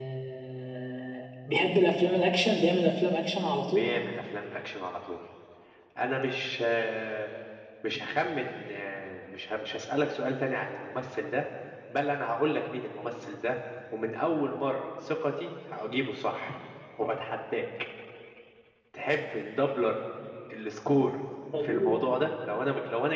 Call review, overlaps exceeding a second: none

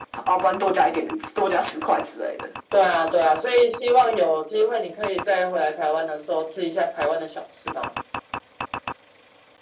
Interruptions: none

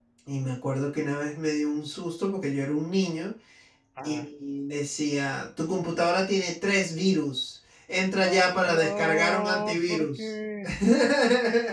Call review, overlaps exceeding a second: present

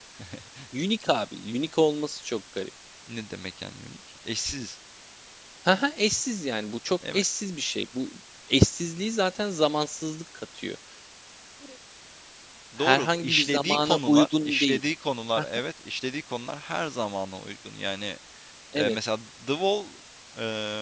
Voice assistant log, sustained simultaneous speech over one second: present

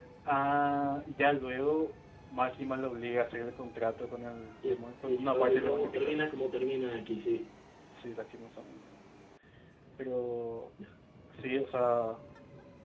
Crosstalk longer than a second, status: present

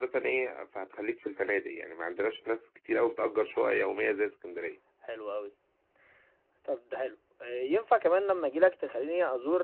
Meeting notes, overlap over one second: none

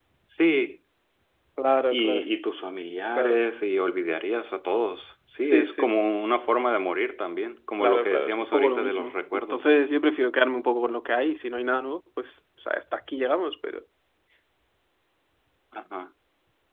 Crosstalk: present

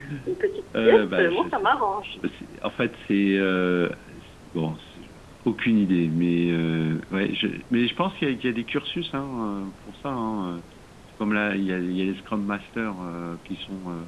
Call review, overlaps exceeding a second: present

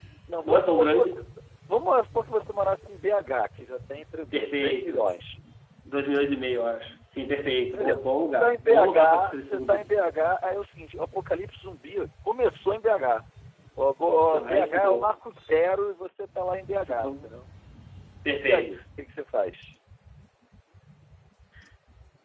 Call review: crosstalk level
present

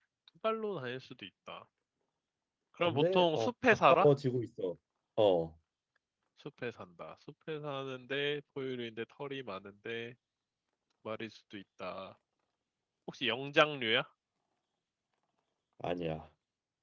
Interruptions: present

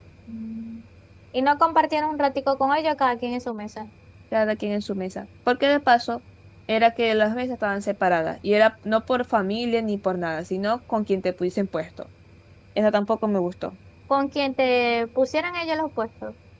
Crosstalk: none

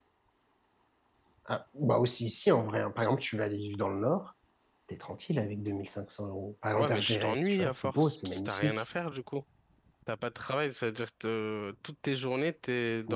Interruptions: present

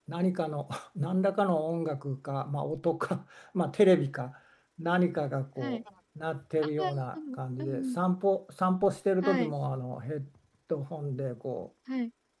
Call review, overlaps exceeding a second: none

